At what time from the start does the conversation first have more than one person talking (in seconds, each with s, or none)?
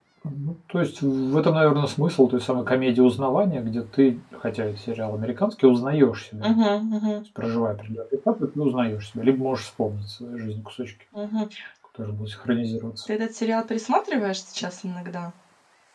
none